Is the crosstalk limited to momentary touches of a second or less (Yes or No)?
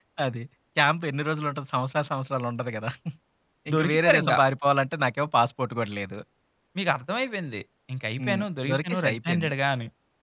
No